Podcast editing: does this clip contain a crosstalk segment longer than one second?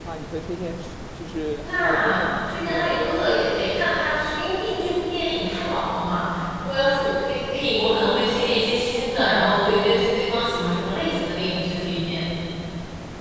Yes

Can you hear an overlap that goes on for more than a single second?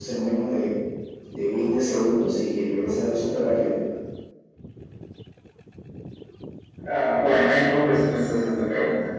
No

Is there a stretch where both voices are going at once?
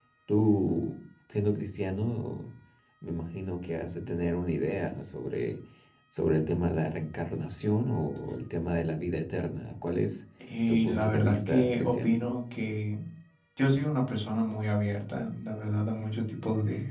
Yes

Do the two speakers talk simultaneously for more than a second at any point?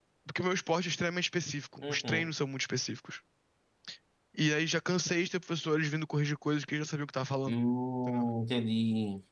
No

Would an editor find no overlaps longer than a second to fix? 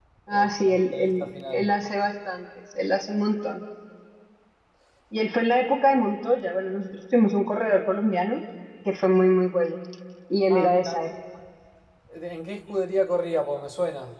No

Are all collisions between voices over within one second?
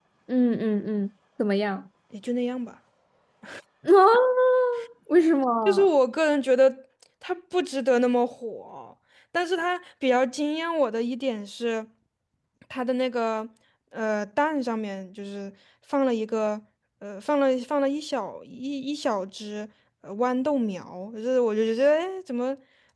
Yes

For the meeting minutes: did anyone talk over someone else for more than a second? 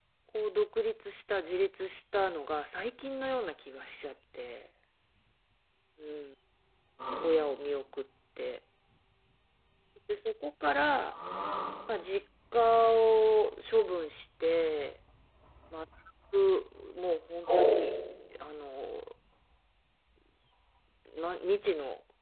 No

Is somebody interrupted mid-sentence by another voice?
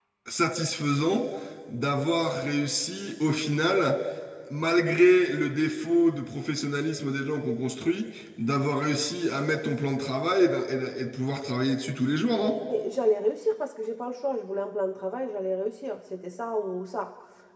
No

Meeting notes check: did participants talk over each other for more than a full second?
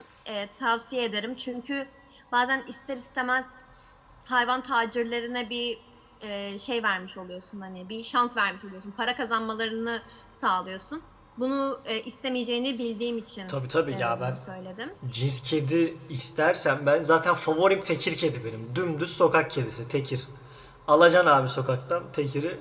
No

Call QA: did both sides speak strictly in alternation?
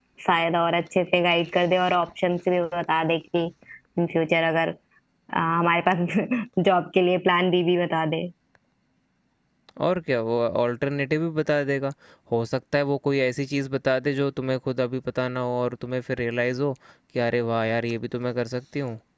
Yes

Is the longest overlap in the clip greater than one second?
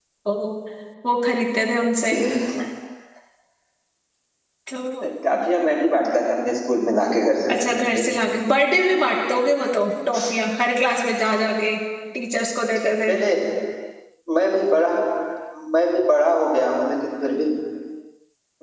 No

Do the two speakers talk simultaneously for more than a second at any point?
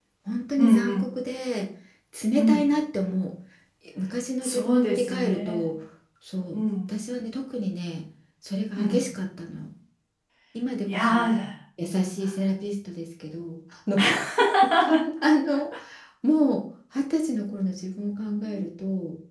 Yes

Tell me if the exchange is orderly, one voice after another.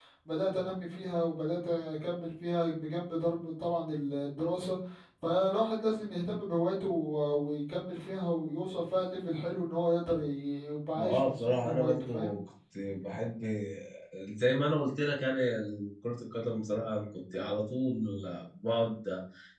No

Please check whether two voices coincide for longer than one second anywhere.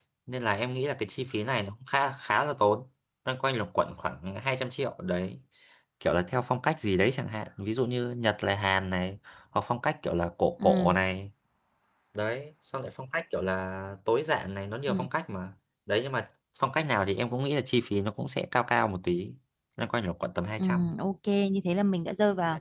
No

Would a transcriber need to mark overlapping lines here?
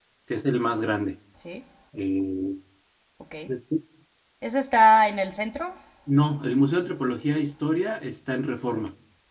No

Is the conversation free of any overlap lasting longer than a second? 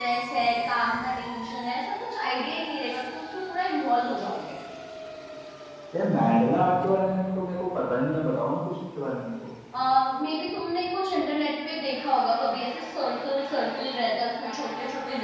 Yes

